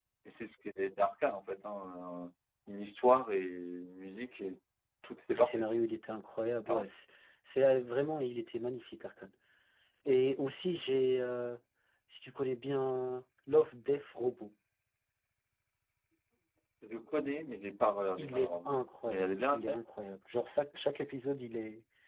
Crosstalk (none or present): present